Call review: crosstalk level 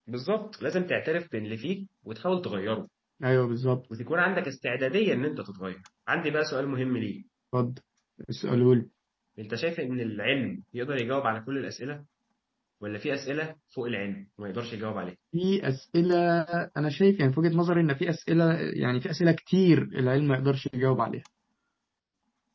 none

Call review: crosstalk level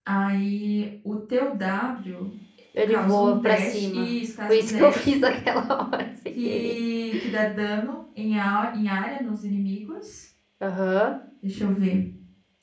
present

